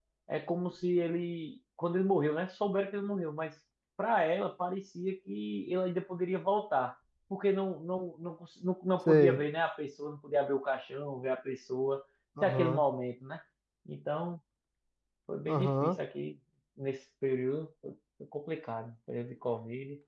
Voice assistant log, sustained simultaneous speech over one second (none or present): none